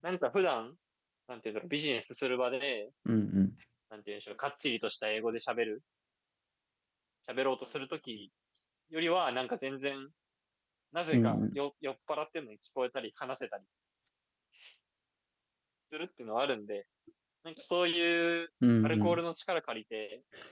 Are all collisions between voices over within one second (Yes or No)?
Yes